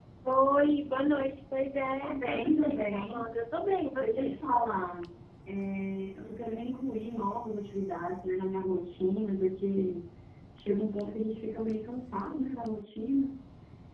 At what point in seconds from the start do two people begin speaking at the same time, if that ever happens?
2.0 s

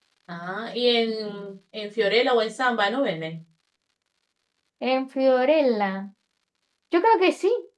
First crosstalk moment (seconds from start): none

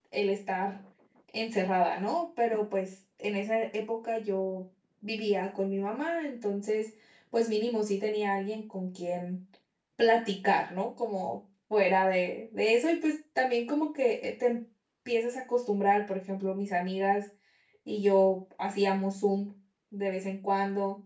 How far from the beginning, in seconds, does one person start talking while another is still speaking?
none

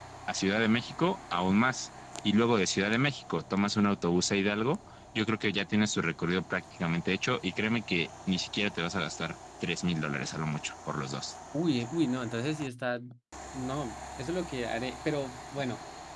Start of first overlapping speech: none

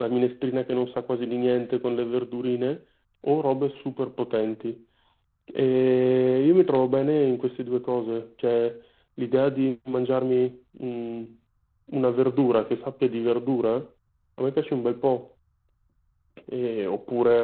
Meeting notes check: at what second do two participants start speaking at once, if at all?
none

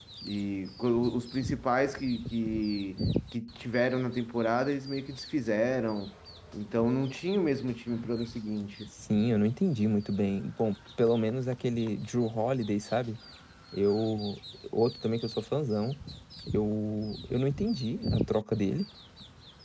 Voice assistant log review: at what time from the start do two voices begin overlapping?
none

